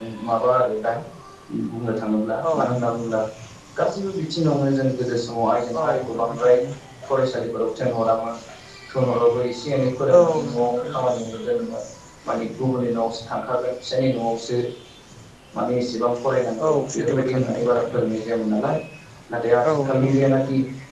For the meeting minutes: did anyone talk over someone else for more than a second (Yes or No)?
Yes